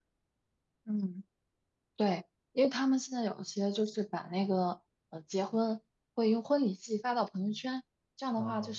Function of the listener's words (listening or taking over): listening